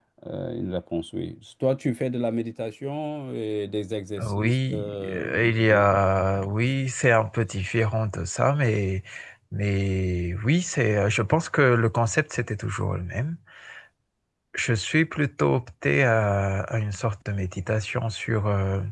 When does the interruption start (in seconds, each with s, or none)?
4.2 s